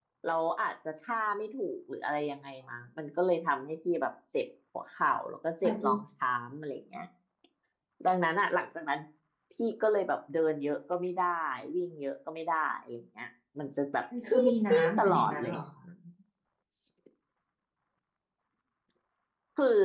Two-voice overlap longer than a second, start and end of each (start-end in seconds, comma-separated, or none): 14.3-15.6